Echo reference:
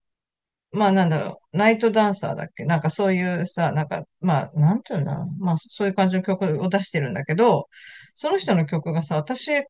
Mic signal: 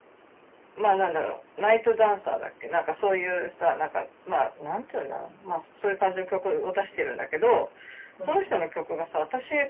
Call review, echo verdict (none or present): present